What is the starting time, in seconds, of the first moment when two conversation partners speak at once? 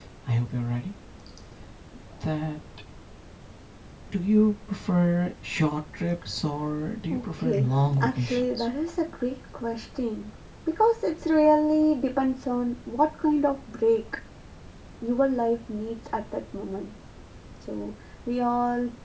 7 s

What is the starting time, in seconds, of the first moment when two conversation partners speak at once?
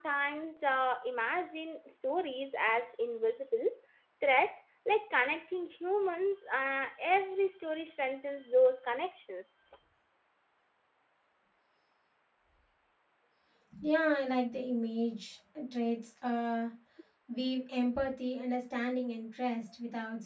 none

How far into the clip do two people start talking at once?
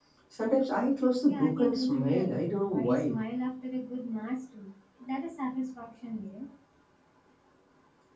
1 s

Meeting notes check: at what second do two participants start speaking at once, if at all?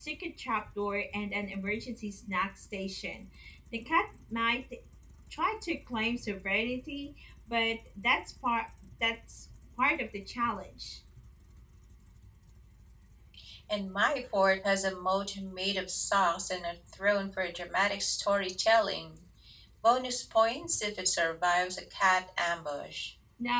none

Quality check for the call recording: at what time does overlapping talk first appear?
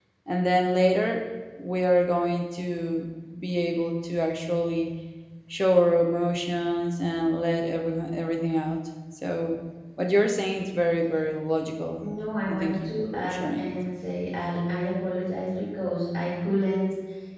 12 s

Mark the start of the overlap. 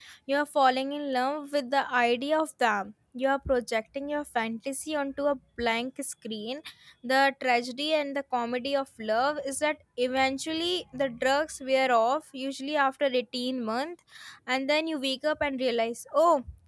none

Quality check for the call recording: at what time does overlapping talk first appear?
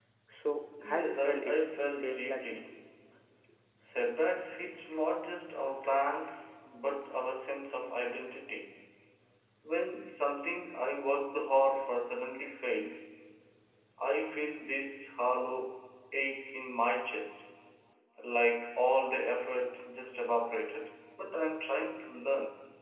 1 s

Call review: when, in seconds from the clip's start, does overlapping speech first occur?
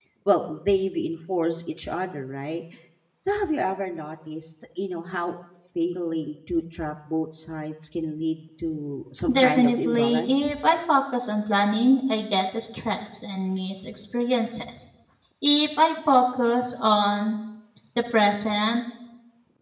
9 s

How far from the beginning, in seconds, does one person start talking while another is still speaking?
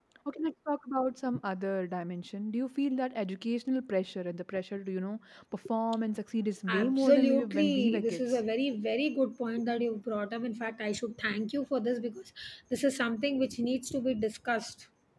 7 s

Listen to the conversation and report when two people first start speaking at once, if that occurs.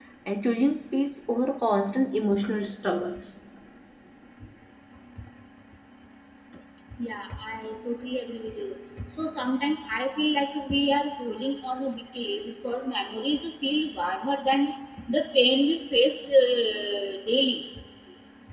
none

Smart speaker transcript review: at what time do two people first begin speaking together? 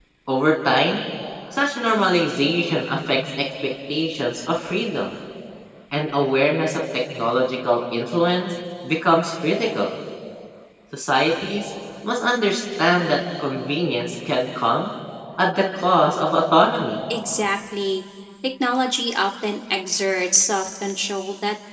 none

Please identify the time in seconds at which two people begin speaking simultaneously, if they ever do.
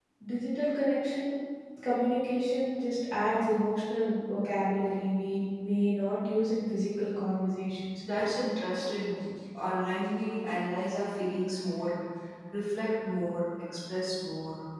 none

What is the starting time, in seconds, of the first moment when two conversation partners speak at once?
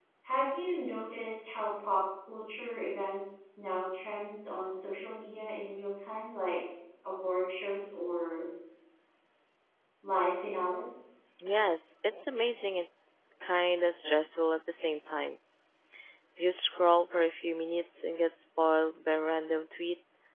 none

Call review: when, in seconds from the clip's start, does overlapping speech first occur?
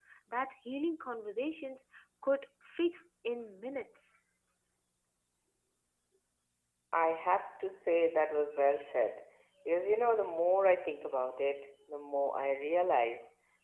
none

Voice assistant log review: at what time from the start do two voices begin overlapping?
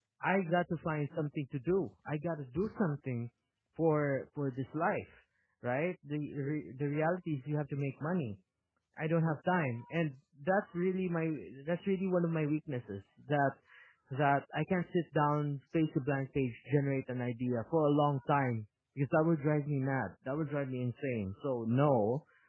none

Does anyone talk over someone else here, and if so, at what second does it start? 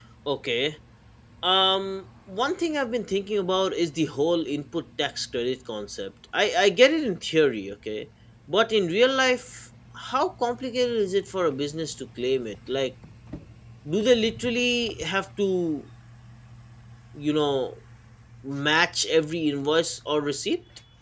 none

